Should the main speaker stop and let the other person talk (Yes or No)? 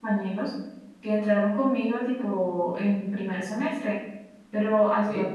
No